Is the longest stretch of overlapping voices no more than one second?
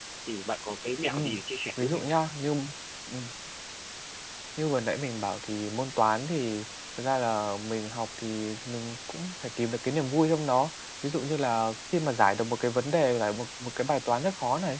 Yes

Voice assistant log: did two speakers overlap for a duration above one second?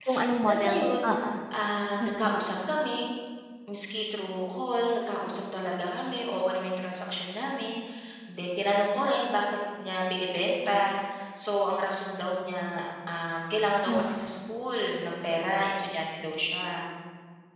No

